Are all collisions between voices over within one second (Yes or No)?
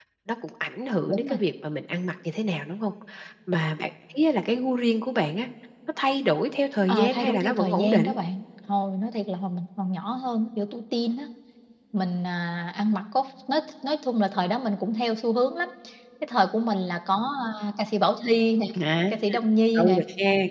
No